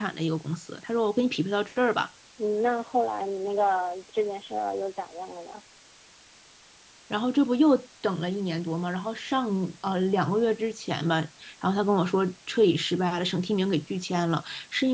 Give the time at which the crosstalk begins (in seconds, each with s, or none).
none